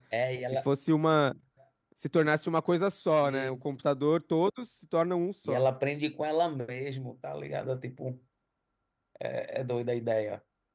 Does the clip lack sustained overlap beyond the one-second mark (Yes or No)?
Yes